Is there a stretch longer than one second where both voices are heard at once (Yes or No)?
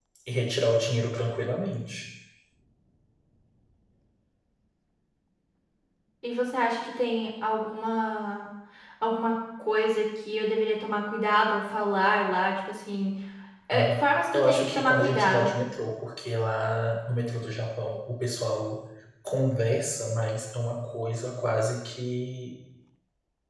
Yes